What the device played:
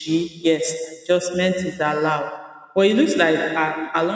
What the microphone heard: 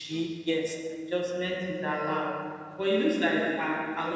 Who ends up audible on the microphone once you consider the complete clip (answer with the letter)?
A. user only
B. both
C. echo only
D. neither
C